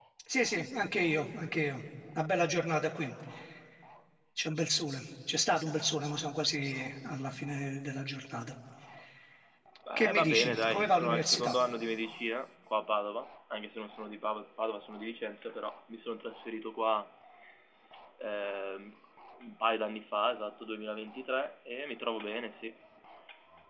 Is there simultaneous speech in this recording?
Yes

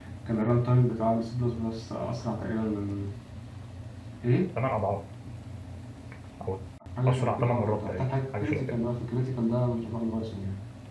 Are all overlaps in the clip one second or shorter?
No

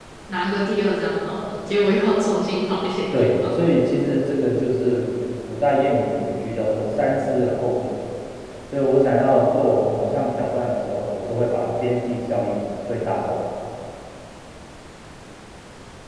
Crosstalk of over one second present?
No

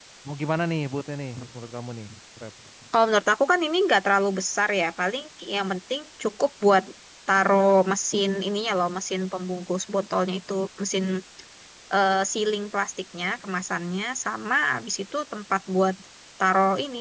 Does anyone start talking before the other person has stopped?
No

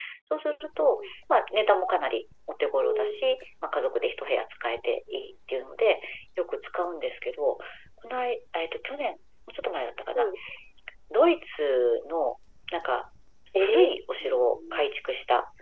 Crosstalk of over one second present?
No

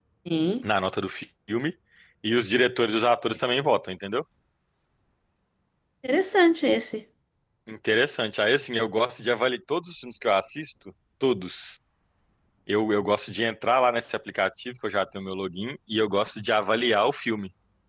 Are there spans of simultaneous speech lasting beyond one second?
No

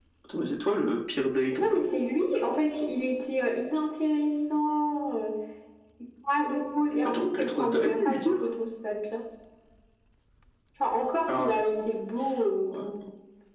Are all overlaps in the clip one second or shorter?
No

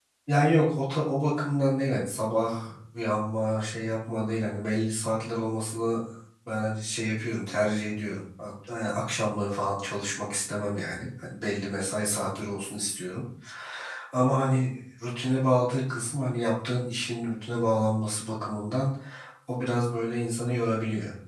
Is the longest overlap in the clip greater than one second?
No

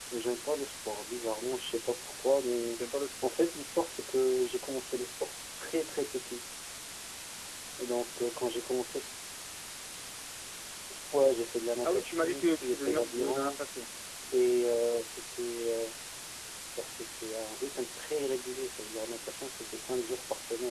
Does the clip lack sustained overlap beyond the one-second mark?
No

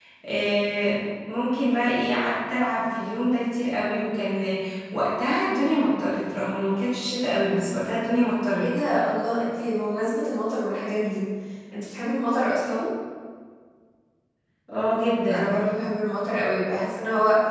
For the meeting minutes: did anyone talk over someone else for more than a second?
No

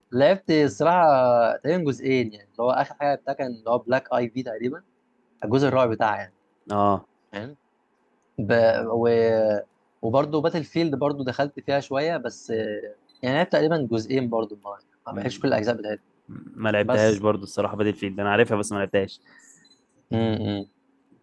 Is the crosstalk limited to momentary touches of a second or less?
Yes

